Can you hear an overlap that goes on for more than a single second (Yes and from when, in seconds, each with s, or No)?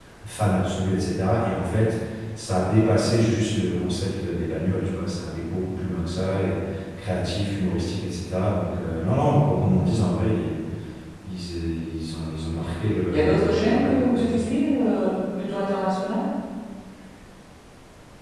Yes, from 13.1 s